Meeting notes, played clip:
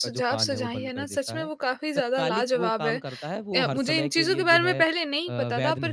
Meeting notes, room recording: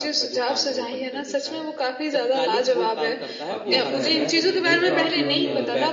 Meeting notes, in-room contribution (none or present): present